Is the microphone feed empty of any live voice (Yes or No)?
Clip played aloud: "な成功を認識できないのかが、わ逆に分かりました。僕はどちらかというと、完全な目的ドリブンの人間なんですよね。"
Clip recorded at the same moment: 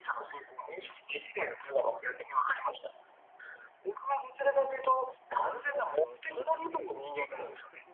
No